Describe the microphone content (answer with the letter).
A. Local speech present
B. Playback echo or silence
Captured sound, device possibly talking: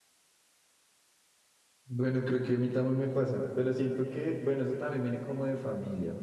A